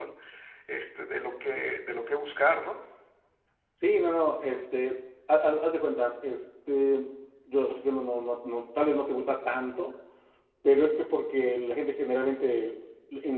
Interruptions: none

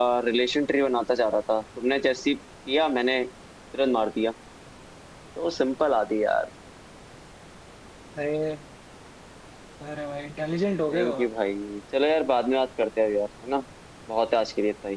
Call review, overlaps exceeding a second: none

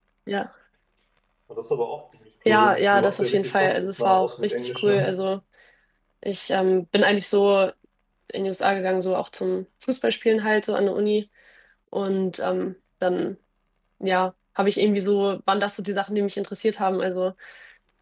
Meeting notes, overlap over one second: present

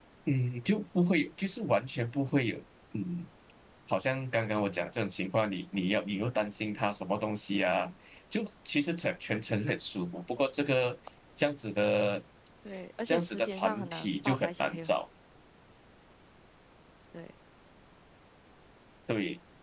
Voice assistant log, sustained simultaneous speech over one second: present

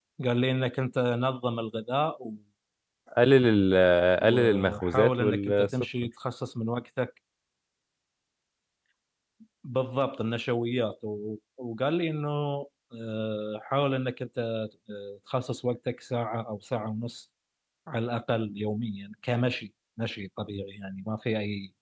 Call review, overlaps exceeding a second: present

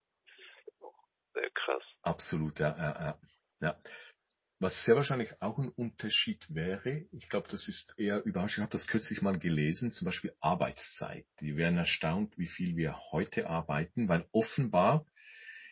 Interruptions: none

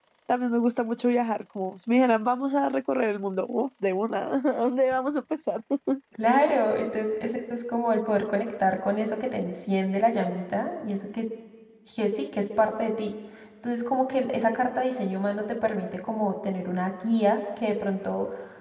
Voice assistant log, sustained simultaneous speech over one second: none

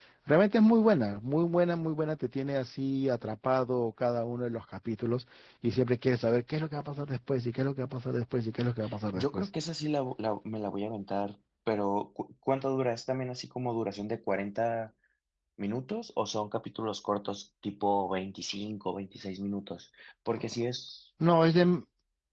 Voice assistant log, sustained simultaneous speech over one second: none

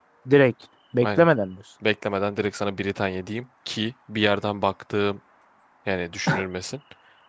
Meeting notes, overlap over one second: none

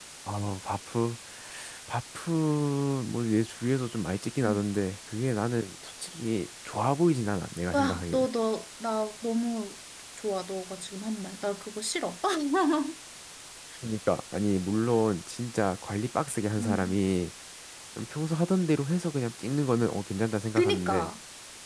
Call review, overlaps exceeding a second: none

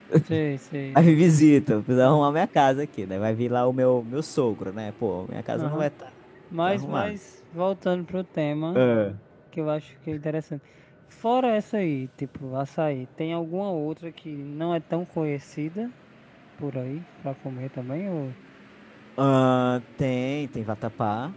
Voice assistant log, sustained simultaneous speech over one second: none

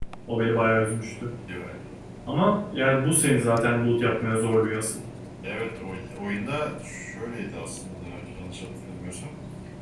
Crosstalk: none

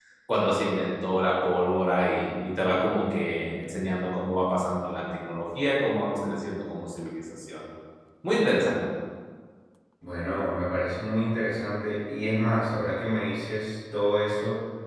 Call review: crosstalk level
none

